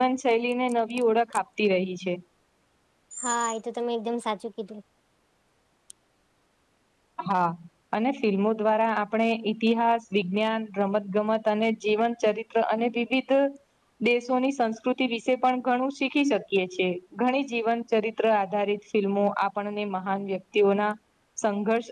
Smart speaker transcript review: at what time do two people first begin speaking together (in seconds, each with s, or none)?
none